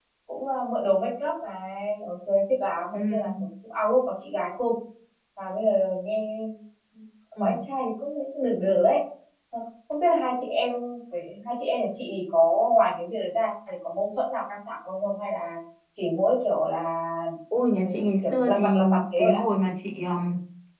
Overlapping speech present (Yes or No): Yes